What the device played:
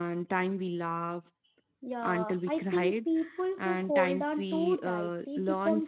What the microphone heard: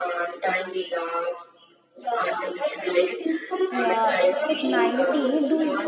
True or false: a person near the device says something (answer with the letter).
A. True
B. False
A